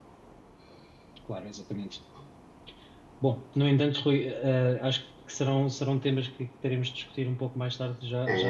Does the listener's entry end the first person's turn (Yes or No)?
Yes